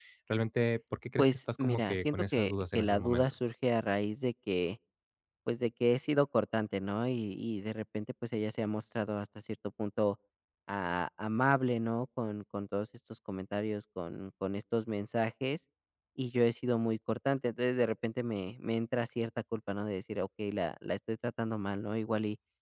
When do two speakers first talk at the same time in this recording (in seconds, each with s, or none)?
1.2 s